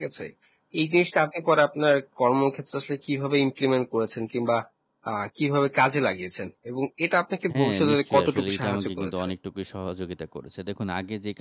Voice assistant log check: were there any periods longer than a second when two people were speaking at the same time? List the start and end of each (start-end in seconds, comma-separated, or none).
7.5-9.3